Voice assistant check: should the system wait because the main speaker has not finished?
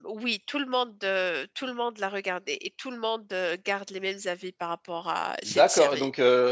No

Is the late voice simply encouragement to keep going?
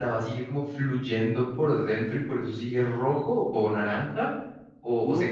No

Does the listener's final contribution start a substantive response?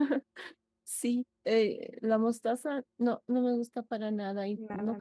No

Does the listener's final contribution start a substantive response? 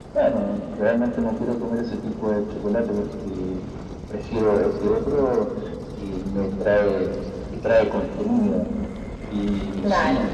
No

